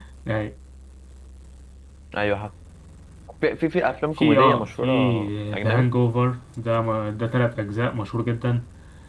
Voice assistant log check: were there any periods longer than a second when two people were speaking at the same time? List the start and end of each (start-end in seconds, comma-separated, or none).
4.2-5.8